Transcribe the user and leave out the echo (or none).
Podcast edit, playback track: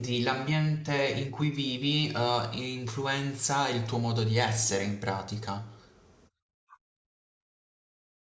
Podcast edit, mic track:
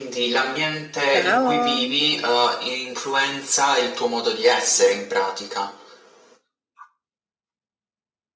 Ciao!